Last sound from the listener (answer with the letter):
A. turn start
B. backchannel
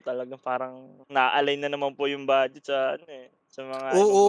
A